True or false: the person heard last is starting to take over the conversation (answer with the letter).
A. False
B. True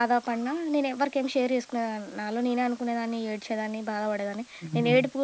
A